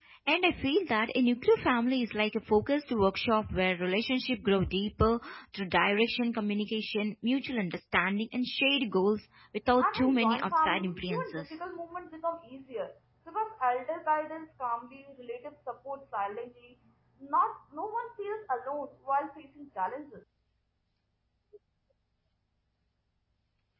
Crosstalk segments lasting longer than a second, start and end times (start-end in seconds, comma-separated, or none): 9.8-11.6